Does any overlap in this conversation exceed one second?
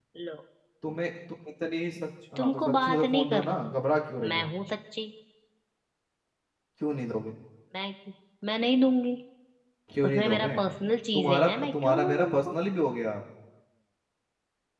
Yes, from 2.4 s

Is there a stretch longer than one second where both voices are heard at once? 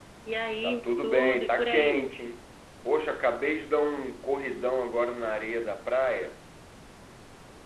Yes, from 0.6 s

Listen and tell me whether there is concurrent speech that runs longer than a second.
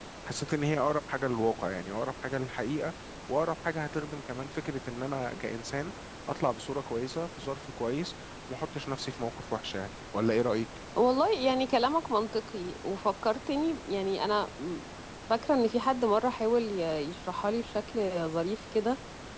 No

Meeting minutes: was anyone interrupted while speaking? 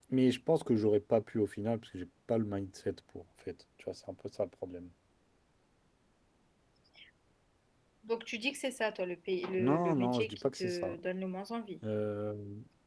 Yes, from 9.6 s

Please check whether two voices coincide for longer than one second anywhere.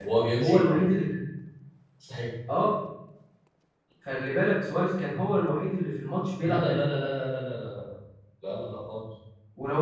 No

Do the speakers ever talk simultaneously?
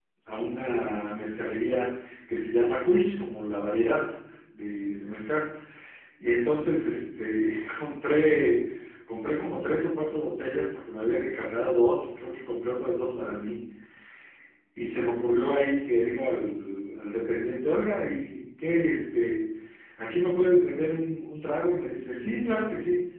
No

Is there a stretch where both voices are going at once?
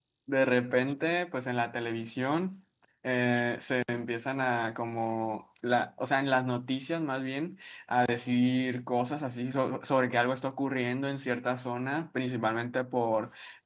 No

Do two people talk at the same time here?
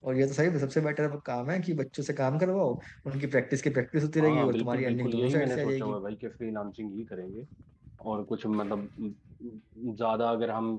Yes, from 4.2 s

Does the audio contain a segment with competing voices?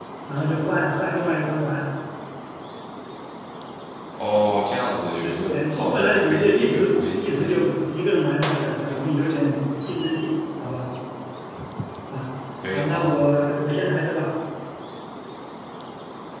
Yes, from 5.5 s

